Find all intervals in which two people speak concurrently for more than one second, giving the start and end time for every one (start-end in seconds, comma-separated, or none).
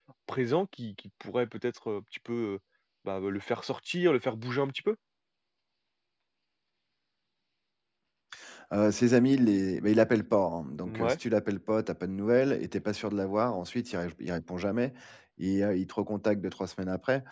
none